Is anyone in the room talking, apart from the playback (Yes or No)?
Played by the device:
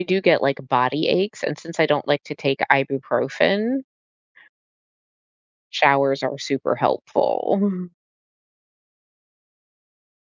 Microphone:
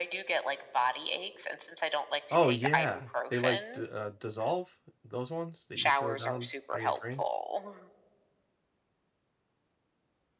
Yes